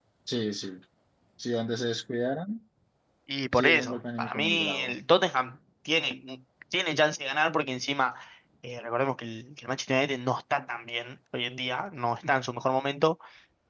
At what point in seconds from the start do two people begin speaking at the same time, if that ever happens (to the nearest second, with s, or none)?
4 s